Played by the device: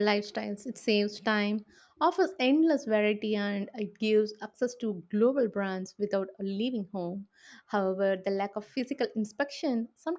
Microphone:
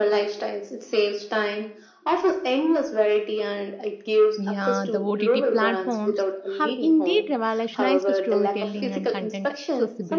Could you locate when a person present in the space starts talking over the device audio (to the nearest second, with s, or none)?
4 s